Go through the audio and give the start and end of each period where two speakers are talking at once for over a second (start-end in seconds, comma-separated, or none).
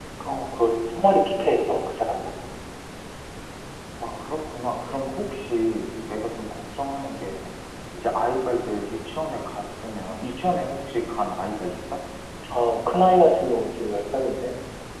none